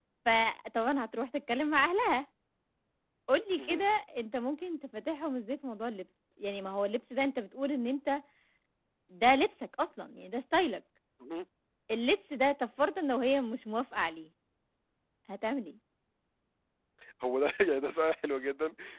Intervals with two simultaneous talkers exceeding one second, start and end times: none

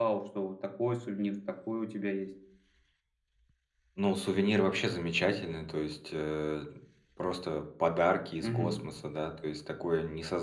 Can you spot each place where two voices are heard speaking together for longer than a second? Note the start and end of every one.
none

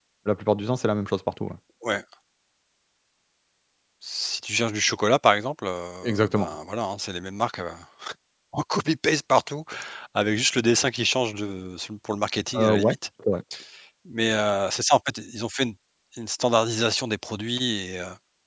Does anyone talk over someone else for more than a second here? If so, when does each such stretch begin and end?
none

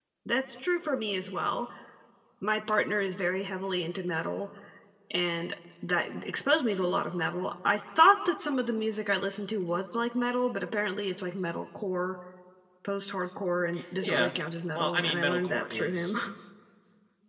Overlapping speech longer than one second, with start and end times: 14.8-16.2

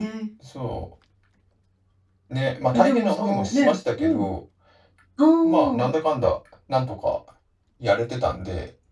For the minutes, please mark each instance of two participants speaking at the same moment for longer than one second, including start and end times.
2.7-4.2

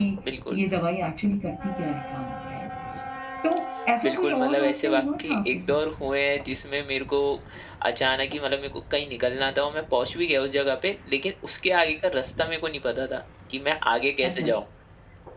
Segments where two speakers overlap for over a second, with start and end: 4.0-5.8

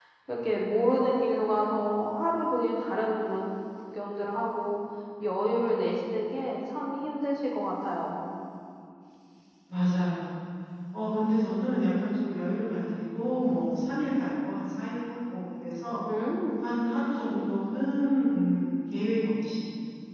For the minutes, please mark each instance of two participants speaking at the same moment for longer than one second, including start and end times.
none

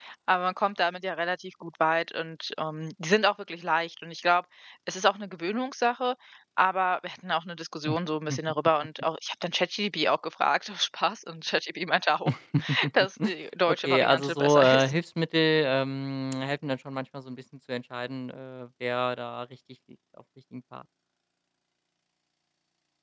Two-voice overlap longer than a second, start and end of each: 13.7-14.9

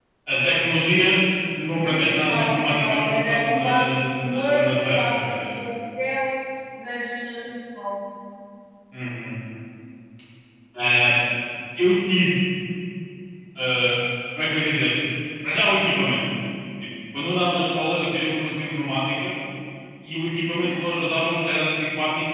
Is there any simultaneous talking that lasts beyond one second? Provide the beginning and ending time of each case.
1.8-5.5

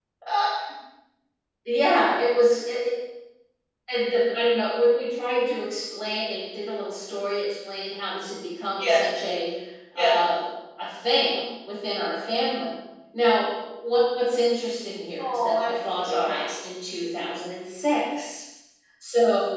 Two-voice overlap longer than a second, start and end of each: 15.2-16.5

